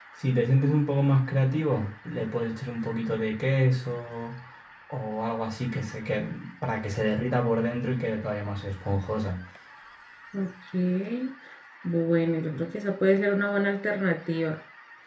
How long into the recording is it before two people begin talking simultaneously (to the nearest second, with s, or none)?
none